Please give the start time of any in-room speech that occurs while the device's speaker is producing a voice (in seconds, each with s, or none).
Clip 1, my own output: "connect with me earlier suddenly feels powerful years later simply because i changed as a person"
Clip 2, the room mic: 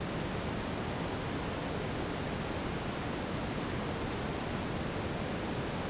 none